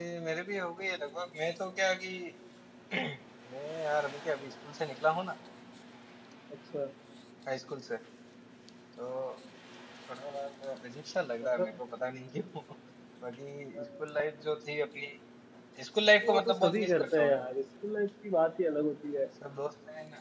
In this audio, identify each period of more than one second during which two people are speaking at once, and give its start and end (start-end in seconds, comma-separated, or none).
16.2-17.5